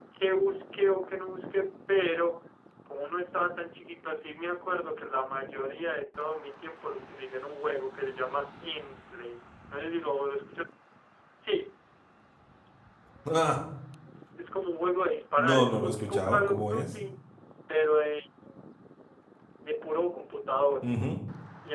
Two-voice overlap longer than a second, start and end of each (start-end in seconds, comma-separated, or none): 15.4-16.9